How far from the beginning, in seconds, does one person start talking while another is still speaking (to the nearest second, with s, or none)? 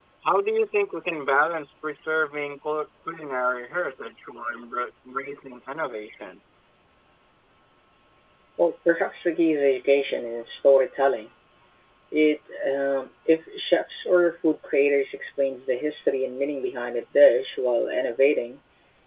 none